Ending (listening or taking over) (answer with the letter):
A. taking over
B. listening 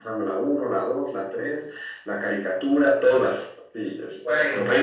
A